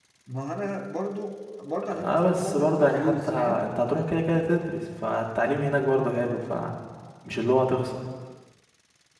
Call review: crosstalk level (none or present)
present